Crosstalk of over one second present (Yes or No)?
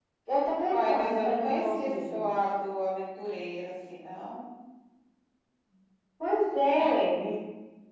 Yes